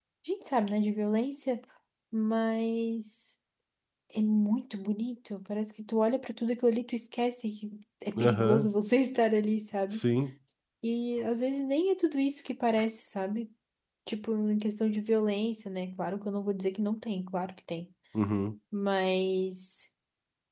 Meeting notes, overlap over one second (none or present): none